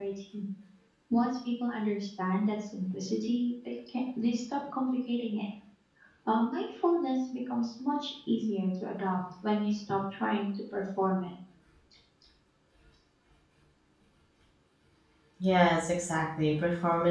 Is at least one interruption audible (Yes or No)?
No